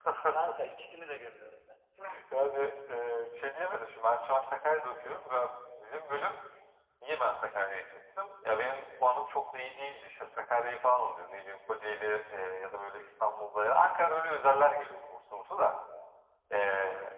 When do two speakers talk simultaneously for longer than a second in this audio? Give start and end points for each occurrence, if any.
none

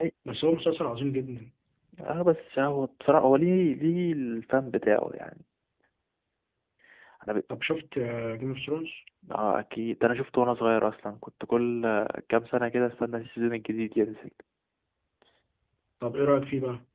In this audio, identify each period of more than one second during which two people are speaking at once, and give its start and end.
none

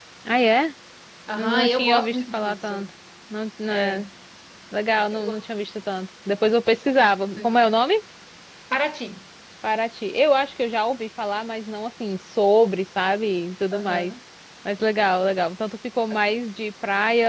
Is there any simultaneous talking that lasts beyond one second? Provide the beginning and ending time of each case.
1.4-2.7

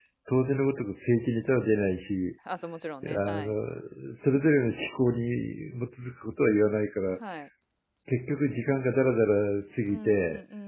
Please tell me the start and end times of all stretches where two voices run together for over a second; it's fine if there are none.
none

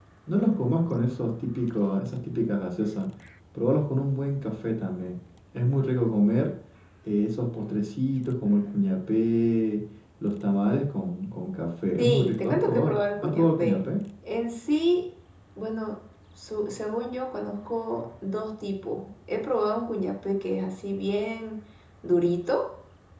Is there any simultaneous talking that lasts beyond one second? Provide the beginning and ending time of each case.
12.0-13.8

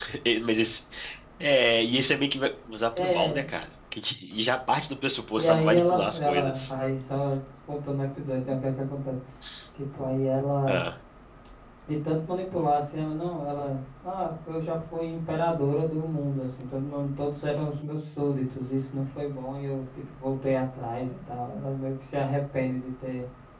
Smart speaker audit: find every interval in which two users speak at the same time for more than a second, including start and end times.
5.4-6.7

